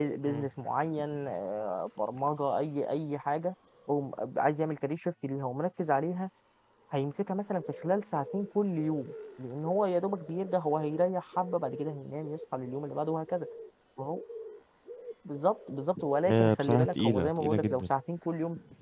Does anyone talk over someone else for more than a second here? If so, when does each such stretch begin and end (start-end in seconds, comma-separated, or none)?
16.3-17.9